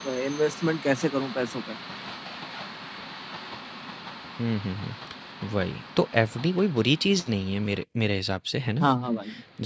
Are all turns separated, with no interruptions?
Yes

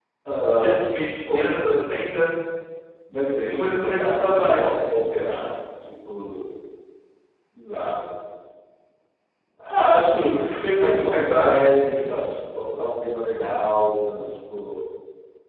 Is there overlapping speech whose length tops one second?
Yes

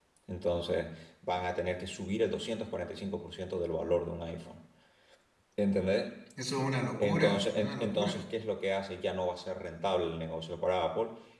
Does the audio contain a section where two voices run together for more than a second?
Yes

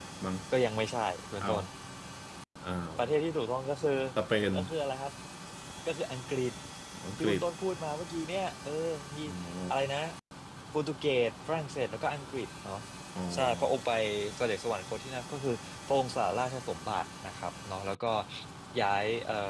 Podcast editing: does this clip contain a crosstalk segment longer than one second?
No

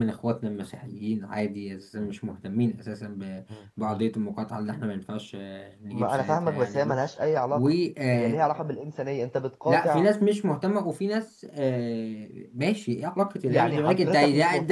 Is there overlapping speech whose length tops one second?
Yes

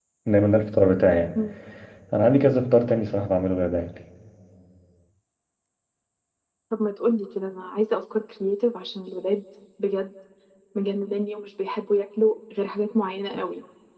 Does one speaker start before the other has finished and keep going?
No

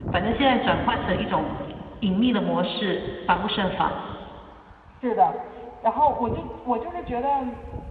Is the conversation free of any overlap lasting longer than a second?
Yes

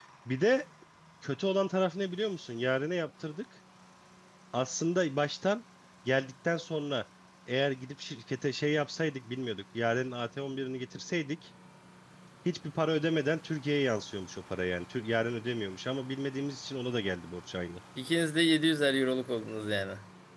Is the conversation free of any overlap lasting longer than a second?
Yes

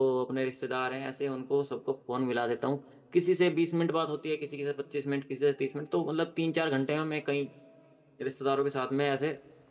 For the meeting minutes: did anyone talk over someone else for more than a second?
No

